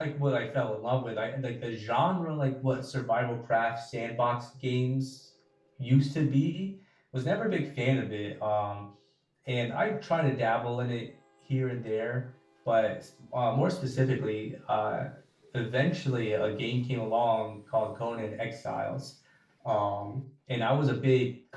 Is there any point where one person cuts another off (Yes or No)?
No